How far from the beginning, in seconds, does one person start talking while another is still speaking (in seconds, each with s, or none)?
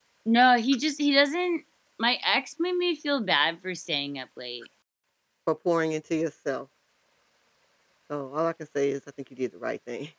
none